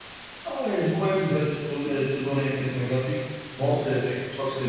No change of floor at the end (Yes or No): Yes